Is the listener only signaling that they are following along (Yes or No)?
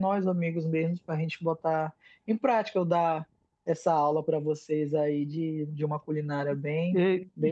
No